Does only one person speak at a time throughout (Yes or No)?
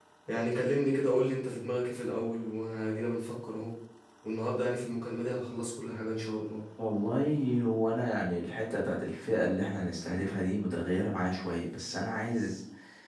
Yes